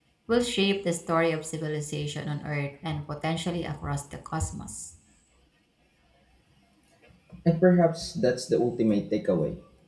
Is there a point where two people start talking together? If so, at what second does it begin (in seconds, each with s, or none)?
none